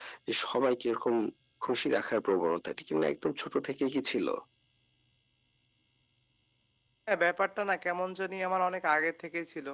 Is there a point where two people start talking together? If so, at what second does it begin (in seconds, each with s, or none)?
none